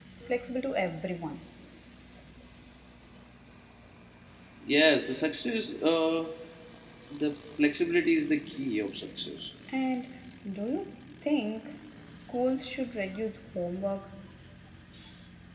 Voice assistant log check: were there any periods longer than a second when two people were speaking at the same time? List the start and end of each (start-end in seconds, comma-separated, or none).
none